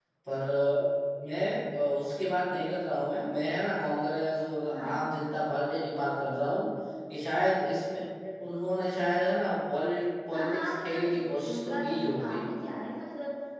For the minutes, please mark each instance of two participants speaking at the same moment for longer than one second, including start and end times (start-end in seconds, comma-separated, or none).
10.3-12.4